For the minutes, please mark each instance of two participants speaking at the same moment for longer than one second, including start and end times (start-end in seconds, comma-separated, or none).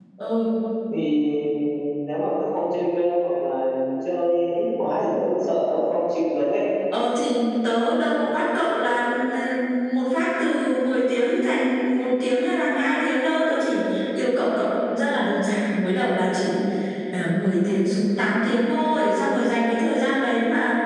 none